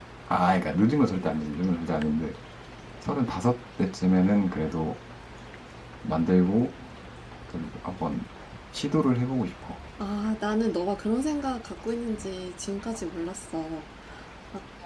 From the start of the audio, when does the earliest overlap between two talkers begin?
none

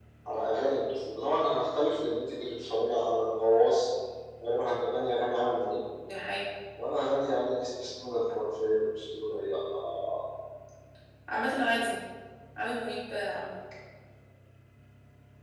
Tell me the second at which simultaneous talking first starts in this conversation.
none

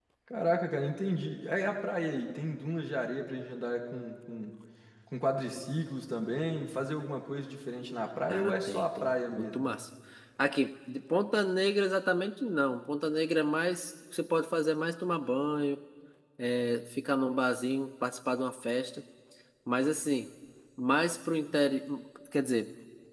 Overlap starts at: 8.3 s

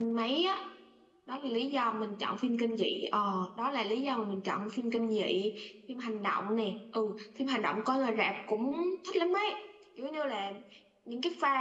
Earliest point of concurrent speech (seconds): none

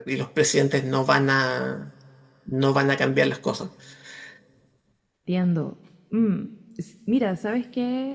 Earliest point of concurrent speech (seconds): none

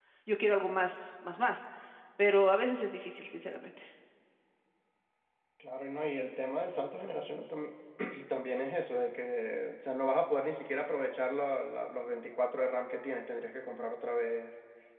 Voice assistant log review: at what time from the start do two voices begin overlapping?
none

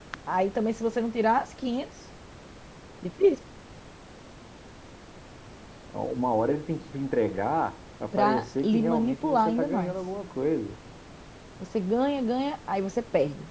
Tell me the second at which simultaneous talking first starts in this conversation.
8.1 s

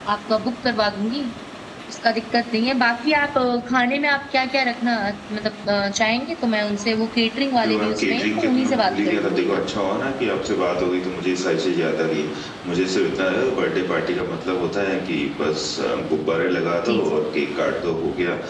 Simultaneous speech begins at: 7.6 s

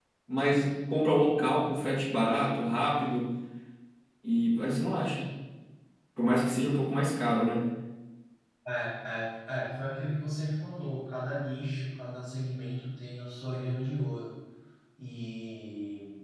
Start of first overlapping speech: none

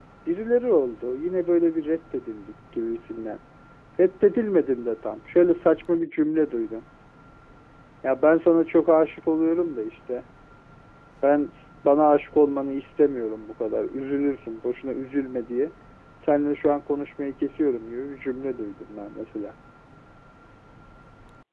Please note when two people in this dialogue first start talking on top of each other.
none

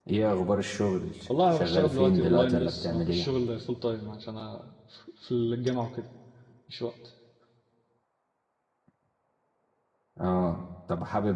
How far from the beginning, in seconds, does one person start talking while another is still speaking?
1.3 s

